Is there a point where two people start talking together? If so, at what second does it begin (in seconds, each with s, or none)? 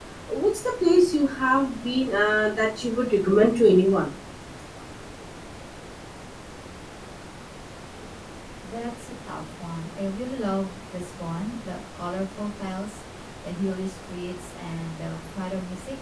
none